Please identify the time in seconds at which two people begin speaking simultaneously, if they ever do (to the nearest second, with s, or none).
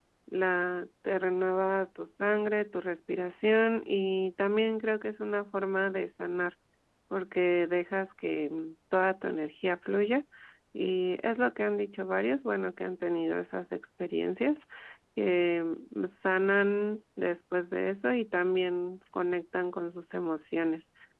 none